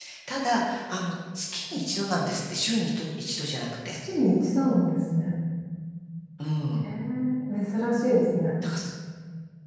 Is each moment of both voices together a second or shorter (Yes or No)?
Yes